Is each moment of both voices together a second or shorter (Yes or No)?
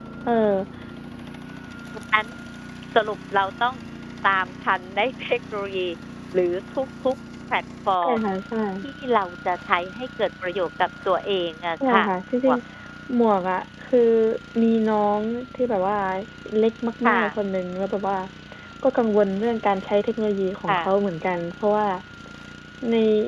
Yes